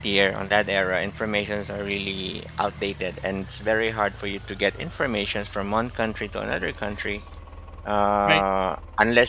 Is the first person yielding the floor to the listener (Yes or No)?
No